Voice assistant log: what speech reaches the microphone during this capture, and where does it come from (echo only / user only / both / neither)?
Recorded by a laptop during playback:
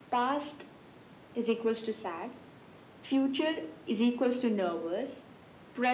echo only